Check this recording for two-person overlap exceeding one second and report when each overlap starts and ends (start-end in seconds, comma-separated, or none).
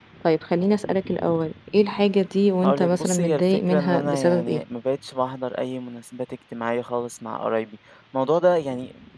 2.6-4.6